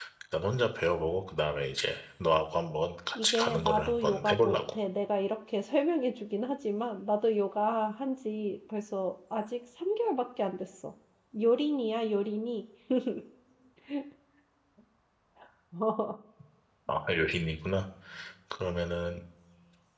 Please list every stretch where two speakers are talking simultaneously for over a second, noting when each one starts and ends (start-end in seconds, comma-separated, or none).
3.2-4.6